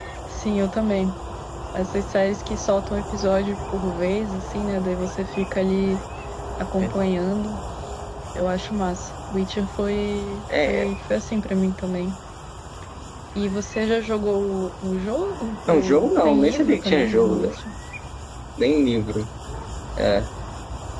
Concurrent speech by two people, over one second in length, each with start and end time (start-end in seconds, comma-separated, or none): 15.7-17.4